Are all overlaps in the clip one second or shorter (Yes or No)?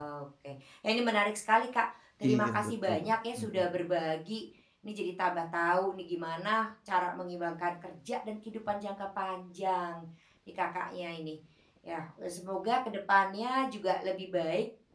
No